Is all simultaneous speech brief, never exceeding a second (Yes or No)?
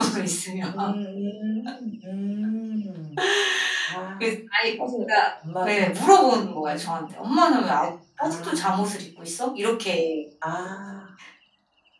Yes